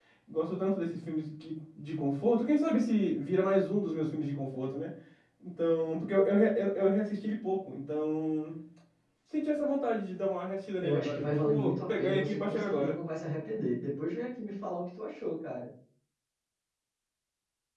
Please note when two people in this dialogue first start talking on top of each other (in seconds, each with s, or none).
10.8 s